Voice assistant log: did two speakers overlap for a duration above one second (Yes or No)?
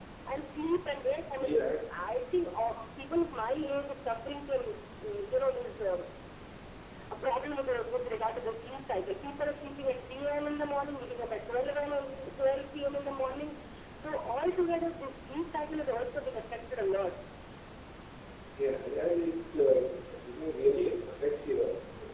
No